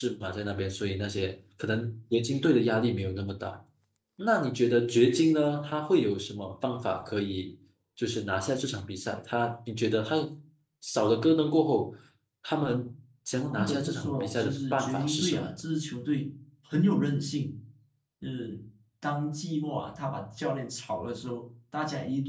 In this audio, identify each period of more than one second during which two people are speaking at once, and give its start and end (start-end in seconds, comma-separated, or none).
13.6-15.4